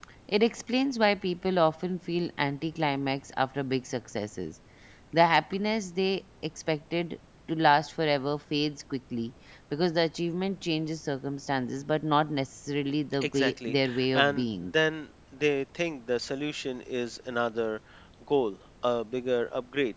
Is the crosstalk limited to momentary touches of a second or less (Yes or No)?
No